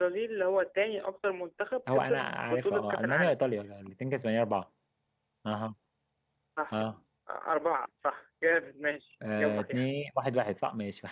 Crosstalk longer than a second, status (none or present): present